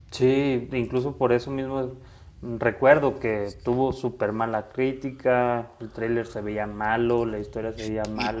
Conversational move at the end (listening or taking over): taking over